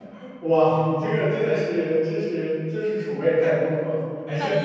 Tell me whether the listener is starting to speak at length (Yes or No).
No